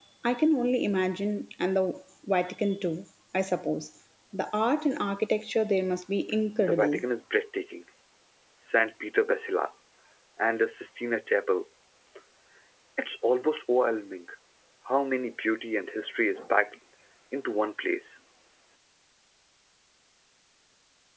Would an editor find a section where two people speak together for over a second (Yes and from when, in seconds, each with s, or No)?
No